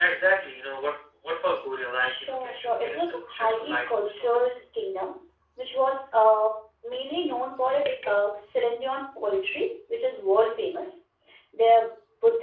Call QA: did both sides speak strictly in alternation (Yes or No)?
No